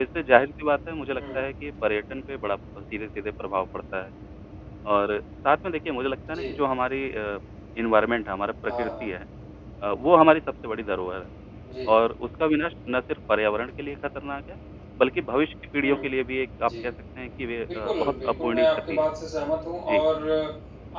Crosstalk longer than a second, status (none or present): present